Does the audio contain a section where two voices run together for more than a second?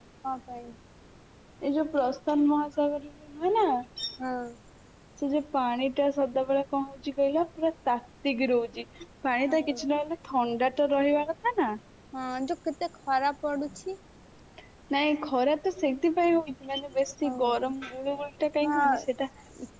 No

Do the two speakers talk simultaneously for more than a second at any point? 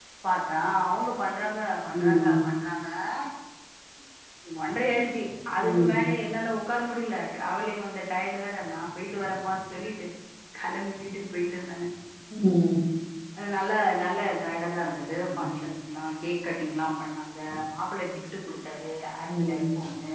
No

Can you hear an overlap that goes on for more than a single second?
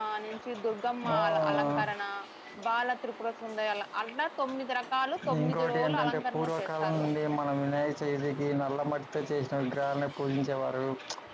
Yes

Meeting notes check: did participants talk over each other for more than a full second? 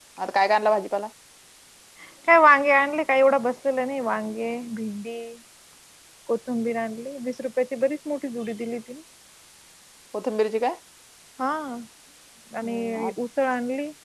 No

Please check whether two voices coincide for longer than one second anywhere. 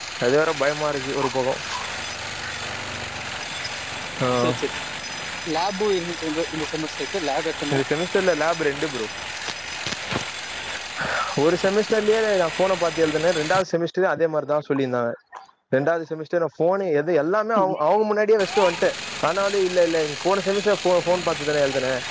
No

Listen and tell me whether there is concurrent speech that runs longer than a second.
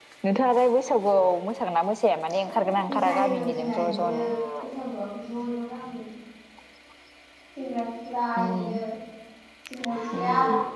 Yes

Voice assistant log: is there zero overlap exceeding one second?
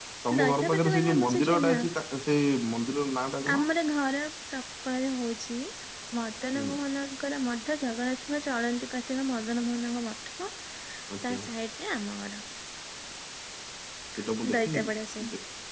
No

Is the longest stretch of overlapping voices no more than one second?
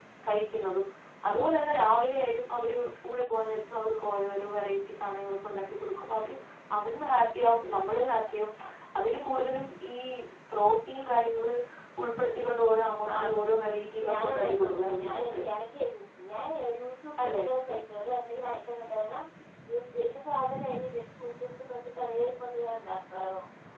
No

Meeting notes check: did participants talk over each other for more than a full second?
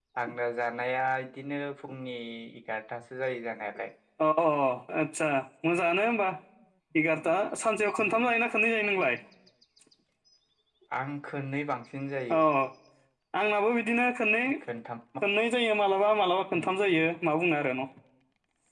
No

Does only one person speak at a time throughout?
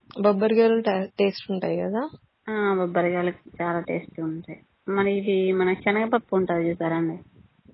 Yes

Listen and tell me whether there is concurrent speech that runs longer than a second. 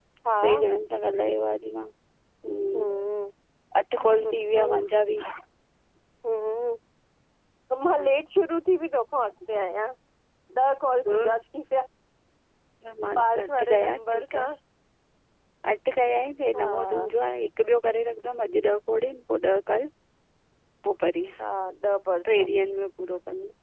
Yes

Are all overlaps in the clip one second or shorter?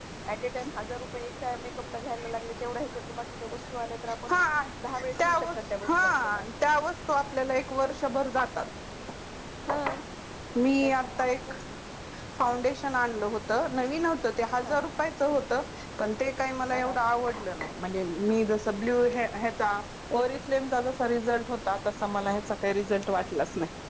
No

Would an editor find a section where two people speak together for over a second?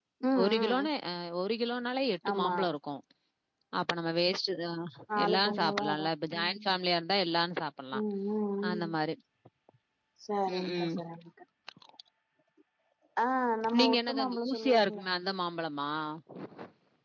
Yes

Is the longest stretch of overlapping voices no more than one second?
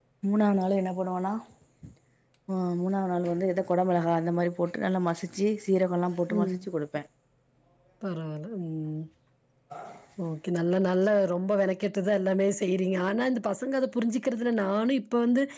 Yes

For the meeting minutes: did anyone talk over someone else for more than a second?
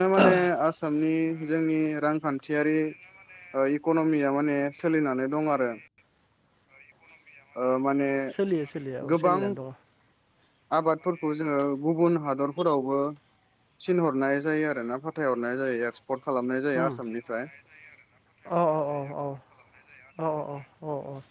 No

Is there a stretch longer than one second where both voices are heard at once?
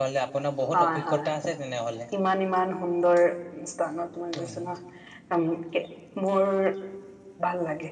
No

